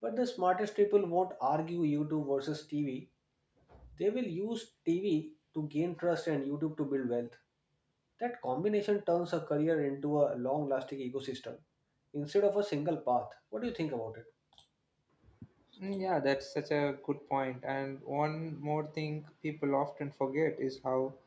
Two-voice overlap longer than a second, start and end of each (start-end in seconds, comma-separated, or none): none